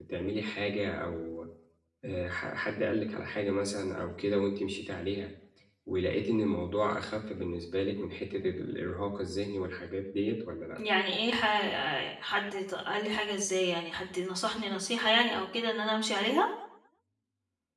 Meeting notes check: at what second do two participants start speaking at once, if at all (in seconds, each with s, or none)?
none